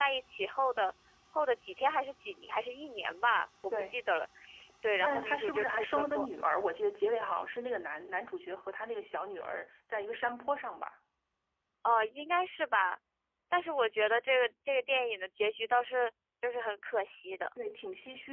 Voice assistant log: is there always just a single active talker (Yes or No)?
No